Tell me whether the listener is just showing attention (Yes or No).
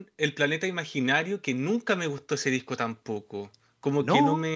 Yes